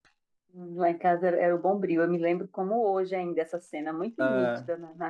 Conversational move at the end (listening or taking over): listening